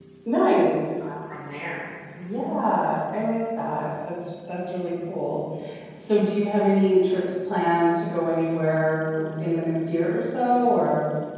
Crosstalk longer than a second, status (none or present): none